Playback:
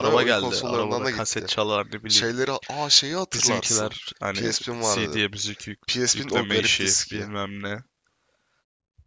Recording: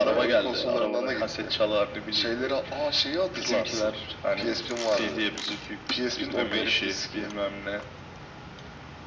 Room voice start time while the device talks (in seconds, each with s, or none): none